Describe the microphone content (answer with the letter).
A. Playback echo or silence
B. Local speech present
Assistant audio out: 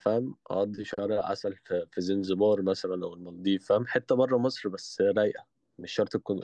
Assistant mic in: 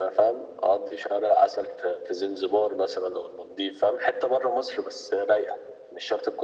A